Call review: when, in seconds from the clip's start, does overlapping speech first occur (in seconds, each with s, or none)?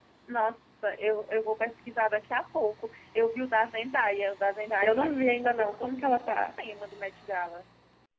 4.8 s